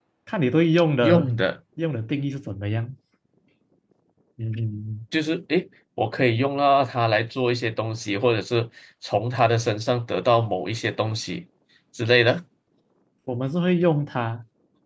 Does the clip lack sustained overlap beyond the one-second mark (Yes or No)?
Yes